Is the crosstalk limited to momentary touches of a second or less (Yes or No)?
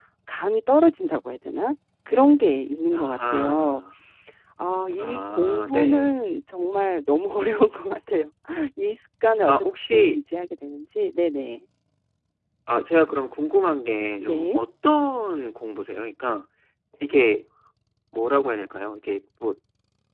No